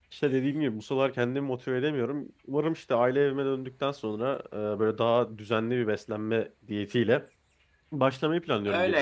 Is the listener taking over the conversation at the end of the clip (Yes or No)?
Yes